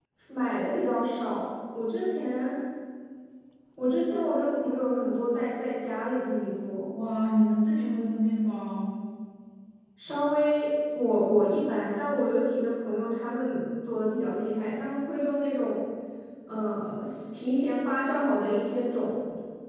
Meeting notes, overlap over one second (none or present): none